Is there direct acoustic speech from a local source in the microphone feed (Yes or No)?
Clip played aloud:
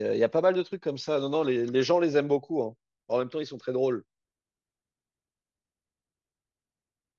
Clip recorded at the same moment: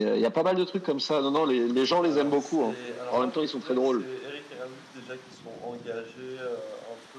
Yes